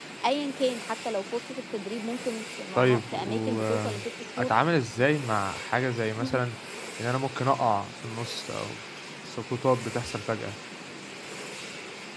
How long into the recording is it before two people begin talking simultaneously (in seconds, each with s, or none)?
2.8 s